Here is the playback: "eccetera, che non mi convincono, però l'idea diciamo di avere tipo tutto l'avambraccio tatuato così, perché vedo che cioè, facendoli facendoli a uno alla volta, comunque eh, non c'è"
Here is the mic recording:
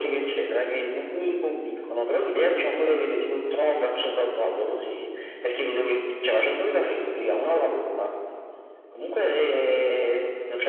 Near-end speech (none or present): none